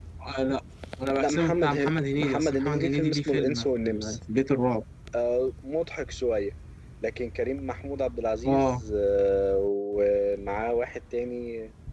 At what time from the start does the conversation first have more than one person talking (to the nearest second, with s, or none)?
1 s